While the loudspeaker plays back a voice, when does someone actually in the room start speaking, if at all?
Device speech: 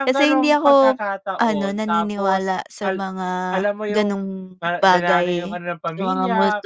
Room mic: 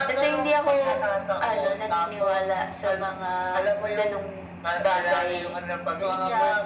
none

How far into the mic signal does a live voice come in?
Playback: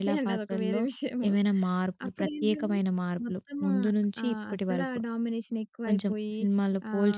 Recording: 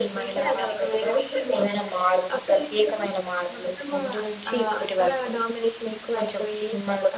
none

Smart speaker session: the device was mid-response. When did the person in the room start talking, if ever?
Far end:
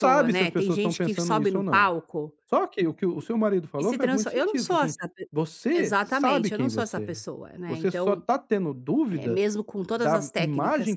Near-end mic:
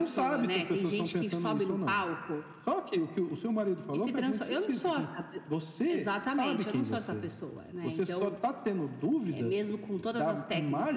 none

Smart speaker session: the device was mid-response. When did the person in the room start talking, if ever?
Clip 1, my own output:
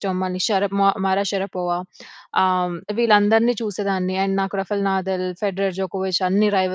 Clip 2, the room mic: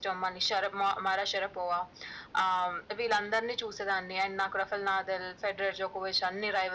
none

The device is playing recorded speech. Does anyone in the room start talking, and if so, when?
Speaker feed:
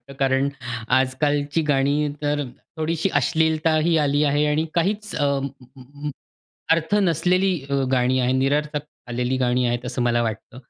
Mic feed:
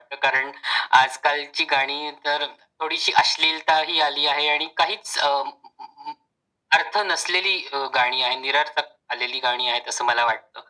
none

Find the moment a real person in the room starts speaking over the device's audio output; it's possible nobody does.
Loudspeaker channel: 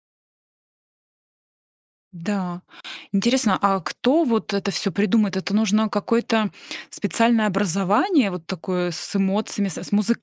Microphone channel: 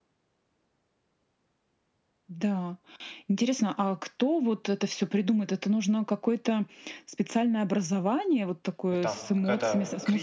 8.9 s

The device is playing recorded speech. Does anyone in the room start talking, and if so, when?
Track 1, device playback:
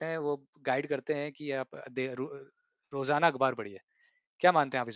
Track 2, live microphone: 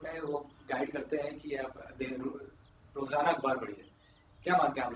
none

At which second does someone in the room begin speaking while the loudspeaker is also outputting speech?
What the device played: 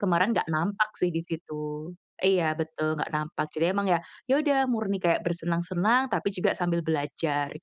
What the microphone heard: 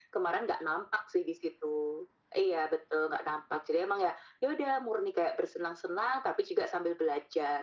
none

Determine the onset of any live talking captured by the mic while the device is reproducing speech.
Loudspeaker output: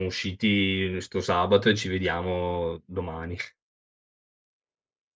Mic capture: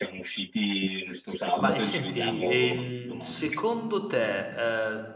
1.6 s

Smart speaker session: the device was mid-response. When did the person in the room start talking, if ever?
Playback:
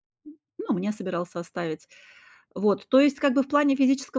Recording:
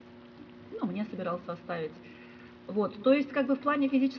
none

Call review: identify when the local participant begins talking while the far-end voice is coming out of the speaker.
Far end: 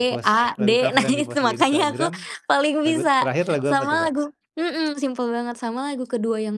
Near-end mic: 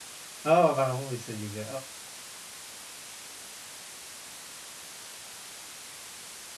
0.5 s

